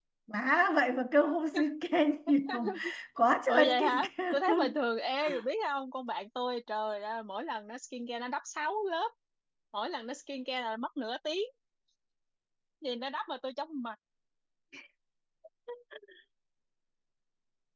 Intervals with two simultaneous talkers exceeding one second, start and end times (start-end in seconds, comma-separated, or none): 3.5-4.7